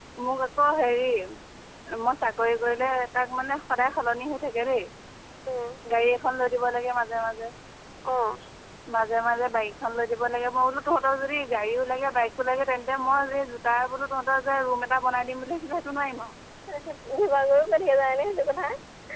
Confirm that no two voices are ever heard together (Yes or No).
Yes